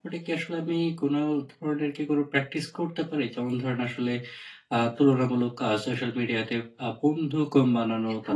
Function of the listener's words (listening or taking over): listening